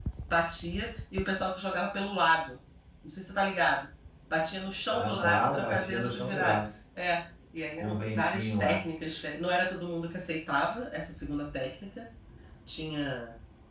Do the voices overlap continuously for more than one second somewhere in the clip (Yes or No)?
Yes